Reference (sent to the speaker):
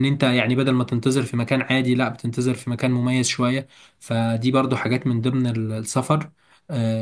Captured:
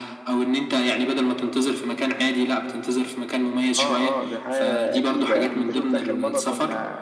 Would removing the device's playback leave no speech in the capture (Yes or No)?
No